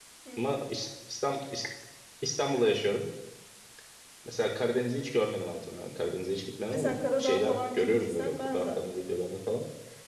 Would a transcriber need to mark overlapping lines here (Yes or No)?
Yes